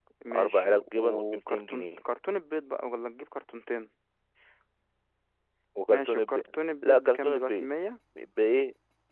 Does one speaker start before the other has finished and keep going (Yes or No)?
Yes